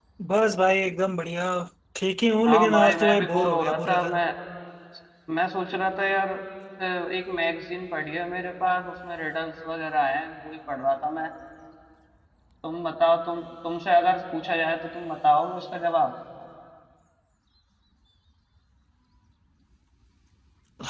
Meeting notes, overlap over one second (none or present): present